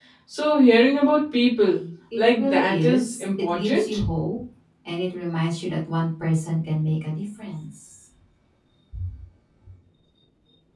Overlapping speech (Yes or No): Yes